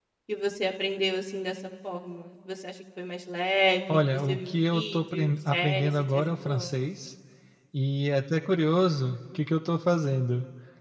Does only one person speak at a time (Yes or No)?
No